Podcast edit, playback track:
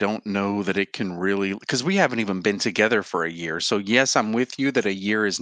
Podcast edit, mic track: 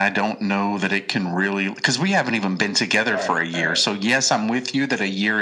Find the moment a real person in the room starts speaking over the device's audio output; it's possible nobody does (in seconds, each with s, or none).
3.1 s